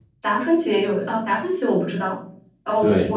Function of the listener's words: listening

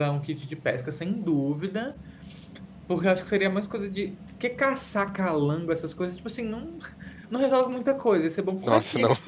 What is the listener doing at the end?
listening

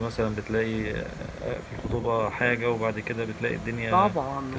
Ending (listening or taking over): taking over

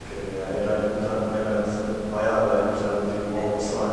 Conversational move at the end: listening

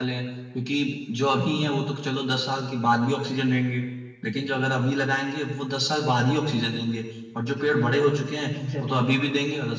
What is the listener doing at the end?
listening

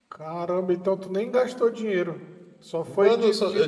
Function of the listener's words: taking over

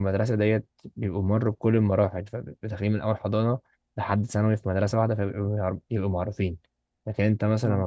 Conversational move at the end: listening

